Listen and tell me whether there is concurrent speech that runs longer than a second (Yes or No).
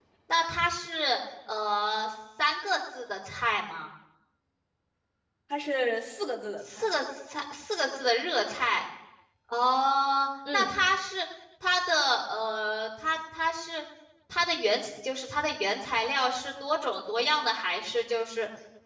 No